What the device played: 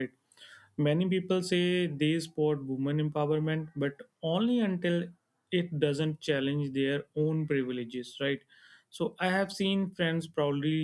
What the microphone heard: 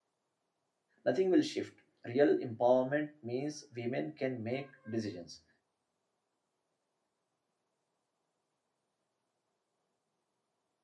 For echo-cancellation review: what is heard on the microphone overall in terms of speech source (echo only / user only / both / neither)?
user only